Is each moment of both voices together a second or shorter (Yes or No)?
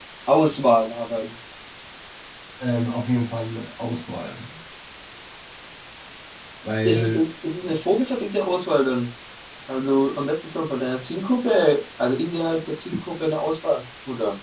Yes